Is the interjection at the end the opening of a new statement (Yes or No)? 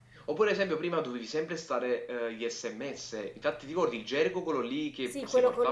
Yes